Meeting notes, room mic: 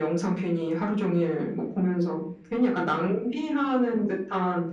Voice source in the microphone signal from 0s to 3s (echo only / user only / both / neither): echo only